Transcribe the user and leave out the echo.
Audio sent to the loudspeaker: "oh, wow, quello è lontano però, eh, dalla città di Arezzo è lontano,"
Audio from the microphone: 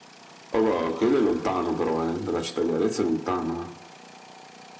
none

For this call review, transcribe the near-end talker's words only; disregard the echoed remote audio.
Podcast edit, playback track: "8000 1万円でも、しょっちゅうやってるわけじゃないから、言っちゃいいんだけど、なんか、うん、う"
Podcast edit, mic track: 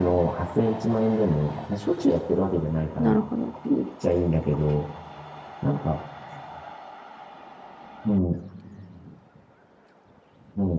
なるほど。

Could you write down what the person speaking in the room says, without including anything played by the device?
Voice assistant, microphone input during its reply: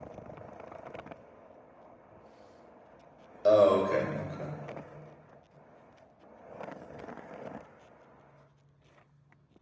Oh, okay. Okay.

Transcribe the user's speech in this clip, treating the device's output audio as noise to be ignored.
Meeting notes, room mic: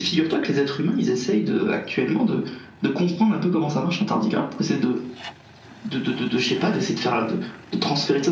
none

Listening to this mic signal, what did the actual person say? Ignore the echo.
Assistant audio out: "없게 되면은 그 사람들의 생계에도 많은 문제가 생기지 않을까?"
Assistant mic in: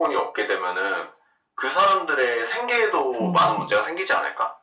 그러니까.

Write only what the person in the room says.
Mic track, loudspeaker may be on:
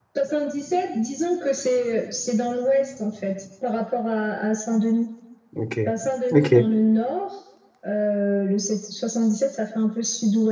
Ok, ok.

